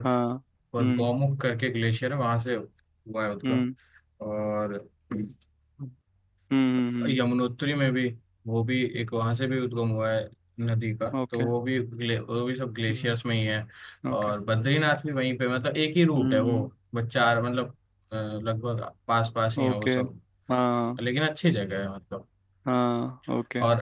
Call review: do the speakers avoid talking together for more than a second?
Yes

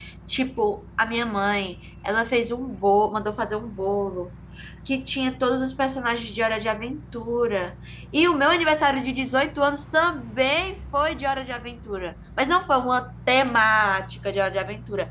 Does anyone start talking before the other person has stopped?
No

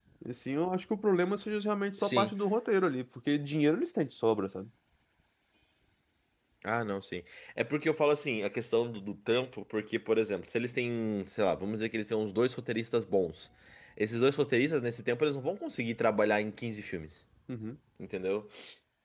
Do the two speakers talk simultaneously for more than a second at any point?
No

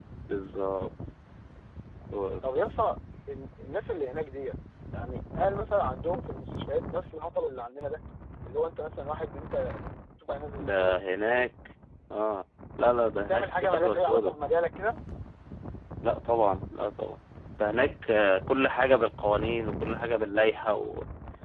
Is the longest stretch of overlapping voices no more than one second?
No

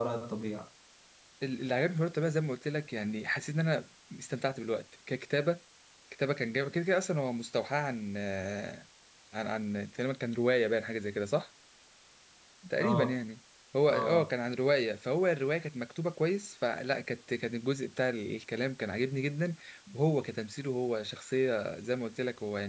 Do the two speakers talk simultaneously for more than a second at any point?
No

